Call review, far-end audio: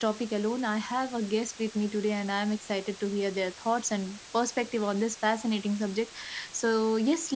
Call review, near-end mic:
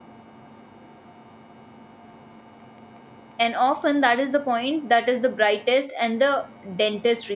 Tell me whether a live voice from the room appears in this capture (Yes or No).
Yes